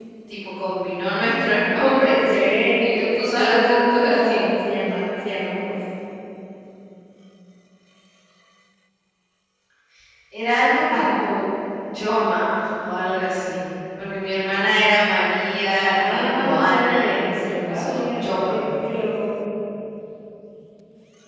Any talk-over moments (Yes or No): Yes